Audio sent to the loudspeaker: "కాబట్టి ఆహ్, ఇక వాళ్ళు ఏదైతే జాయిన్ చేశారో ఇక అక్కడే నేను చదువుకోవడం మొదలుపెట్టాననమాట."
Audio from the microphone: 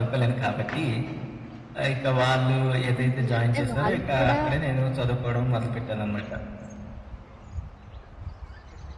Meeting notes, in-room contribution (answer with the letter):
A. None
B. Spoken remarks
B